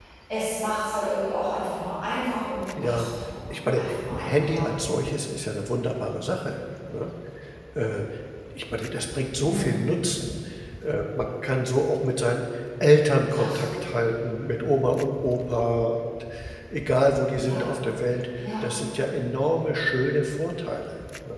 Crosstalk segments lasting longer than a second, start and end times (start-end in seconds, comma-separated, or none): 3.5-4.8